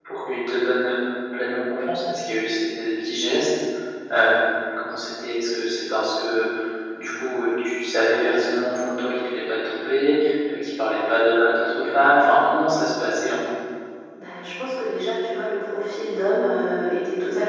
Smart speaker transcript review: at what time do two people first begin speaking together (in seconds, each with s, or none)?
none